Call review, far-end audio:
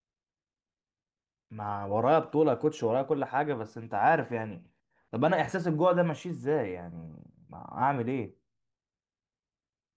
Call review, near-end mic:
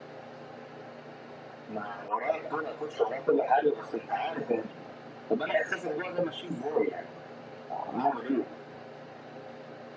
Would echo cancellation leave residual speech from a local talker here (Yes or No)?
No